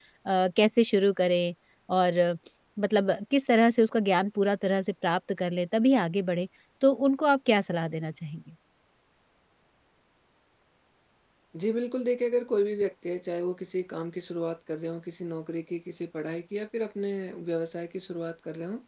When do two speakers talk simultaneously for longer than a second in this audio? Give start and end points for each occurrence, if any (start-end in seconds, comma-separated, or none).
none